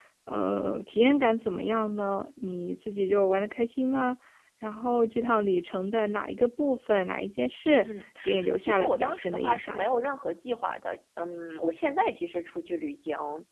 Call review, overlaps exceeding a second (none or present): present